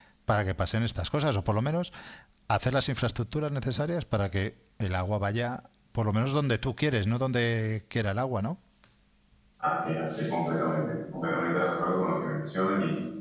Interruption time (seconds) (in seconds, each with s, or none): none